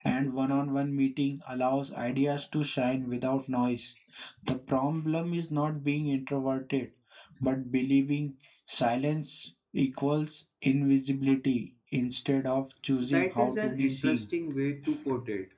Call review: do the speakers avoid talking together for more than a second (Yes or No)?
No